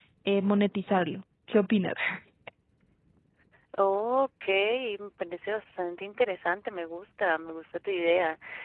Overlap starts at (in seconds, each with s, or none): none